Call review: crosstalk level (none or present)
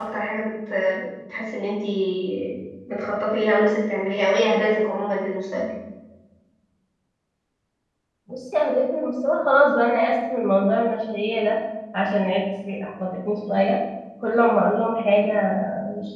none